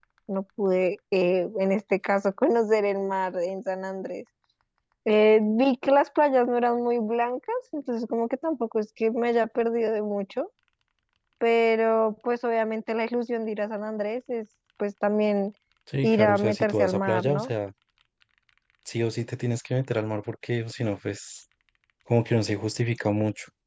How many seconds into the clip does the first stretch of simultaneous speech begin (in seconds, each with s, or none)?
16.0 s